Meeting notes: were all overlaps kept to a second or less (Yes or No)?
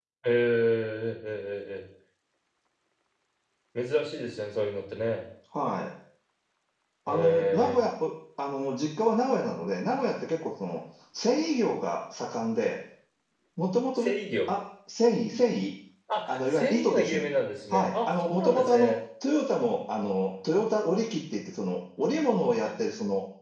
No